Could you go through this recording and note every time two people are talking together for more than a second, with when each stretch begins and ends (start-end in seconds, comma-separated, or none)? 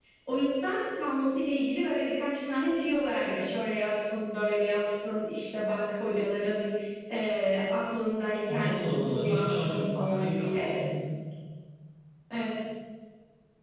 8.5-10.7